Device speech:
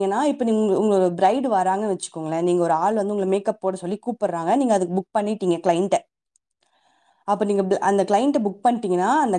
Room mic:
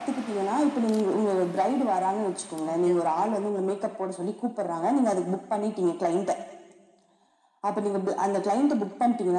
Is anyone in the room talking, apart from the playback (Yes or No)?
Yes